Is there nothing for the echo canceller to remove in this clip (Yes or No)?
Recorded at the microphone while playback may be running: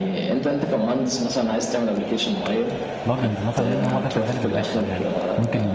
No